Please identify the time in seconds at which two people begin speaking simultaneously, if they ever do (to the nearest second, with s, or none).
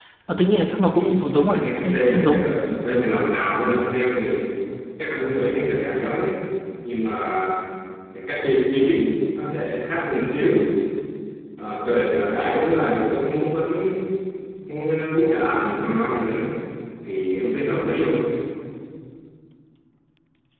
1 s